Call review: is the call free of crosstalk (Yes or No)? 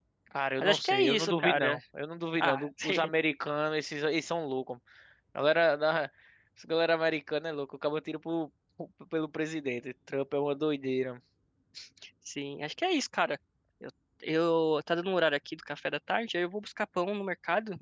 No